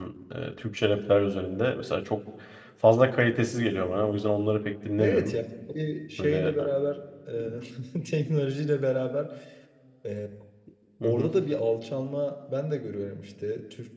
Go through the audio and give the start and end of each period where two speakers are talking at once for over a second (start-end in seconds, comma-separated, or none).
none